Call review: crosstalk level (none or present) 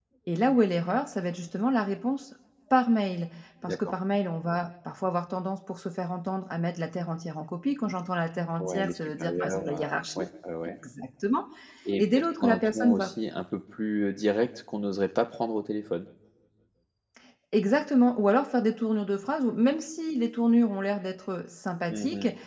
present